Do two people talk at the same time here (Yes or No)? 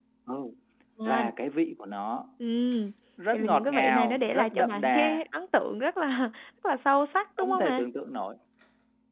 Yes